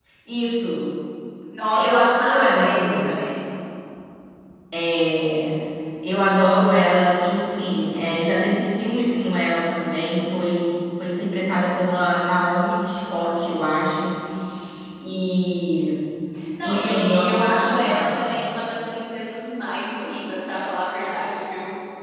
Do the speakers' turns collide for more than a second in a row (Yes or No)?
Yes